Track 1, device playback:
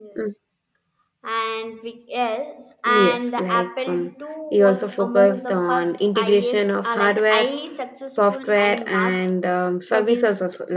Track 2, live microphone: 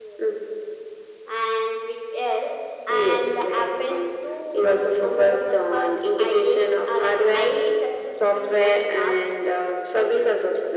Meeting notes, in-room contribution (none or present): none